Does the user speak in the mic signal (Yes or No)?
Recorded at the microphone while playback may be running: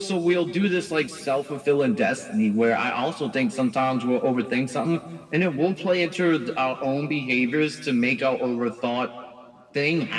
No